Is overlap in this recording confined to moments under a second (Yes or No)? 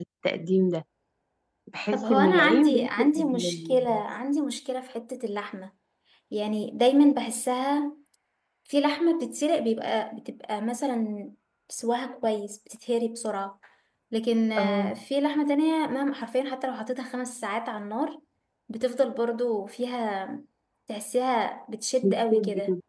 No